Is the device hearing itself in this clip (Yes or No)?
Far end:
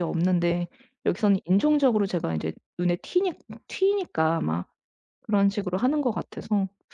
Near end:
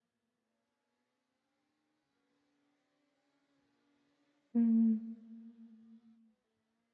No